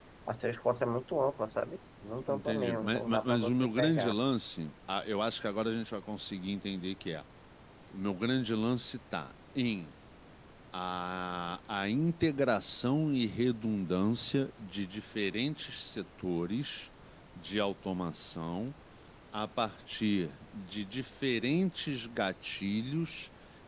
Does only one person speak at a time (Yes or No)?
No